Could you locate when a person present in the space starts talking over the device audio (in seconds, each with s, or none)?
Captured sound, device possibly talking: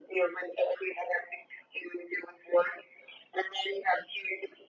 none